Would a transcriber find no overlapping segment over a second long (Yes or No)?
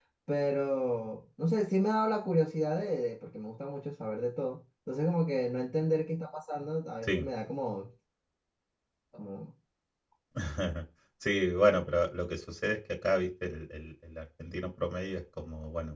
Yes